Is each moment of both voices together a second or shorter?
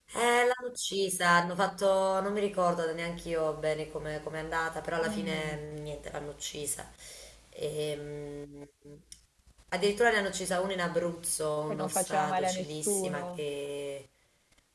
No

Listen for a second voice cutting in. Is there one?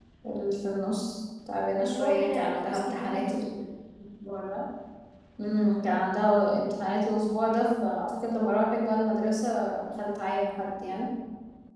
Yes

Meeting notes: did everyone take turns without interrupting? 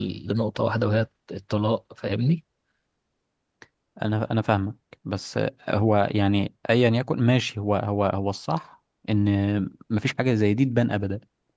Yes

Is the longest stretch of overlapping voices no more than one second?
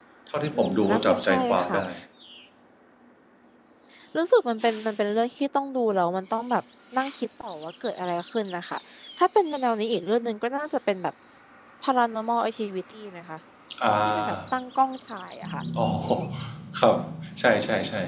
No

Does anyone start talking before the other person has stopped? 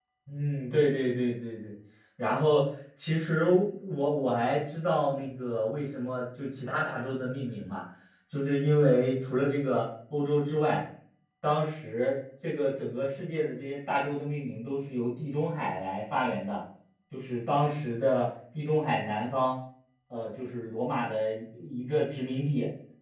No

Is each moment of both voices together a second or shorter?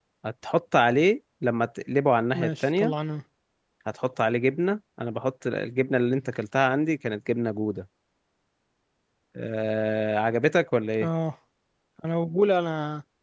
Yes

